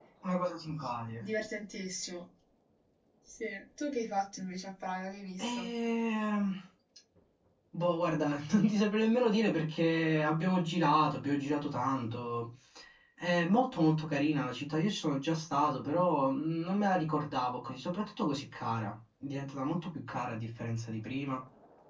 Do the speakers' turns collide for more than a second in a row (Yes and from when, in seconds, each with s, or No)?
No